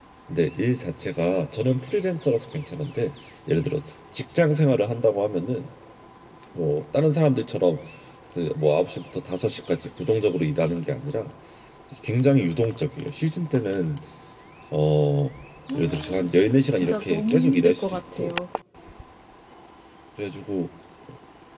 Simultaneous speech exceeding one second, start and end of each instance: 16.7-18.3

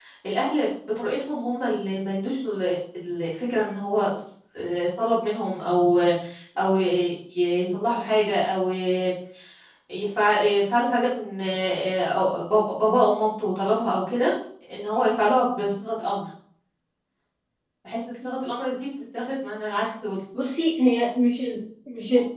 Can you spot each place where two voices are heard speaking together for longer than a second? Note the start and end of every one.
none

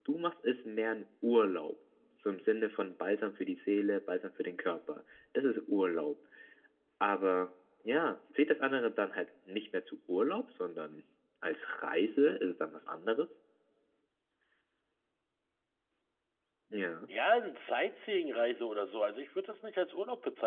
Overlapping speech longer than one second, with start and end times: none

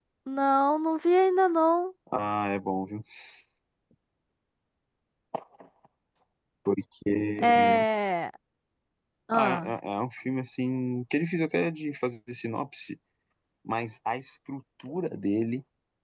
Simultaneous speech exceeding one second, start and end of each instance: none

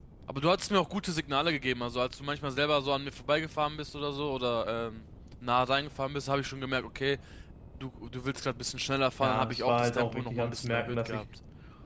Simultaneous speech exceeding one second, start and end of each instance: 9.2-11.2

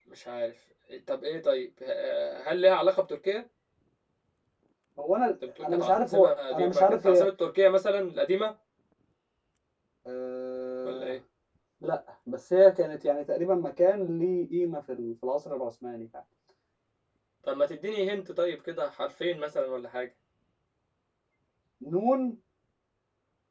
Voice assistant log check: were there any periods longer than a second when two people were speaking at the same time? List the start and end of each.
5.6-7.3

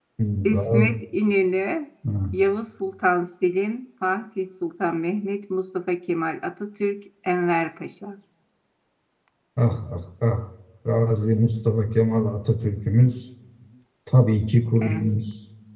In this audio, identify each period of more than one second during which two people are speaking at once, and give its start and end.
none

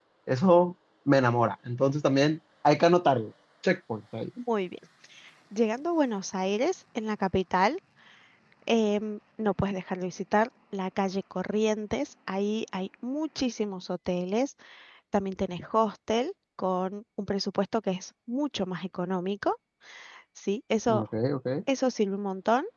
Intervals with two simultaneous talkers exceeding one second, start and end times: none

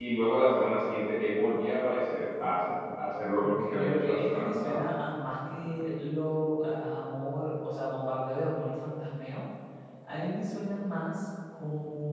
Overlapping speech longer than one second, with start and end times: 3.4-4.8

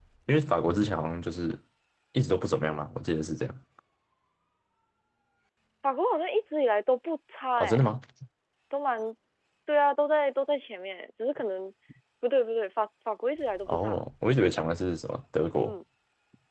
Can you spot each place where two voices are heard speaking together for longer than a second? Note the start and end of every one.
none

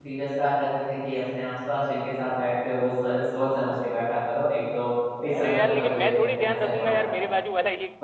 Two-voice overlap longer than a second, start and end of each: 5.4-7.4

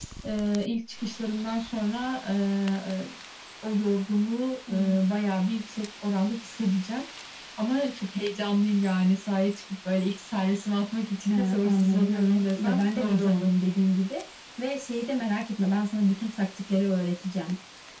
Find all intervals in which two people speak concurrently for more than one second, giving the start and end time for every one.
11.3-13.5

